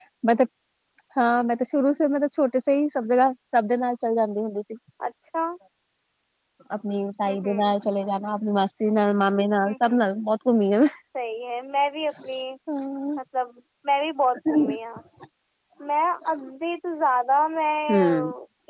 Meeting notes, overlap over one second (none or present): none